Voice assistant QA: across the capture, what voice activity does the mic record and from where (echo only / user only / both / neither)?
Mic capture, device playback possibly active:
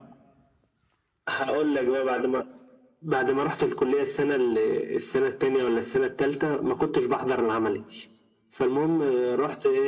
echo only